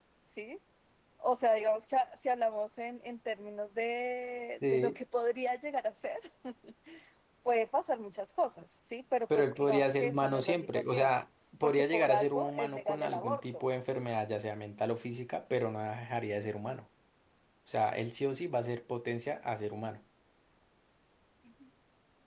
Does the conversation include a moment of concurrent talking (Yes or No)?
Yes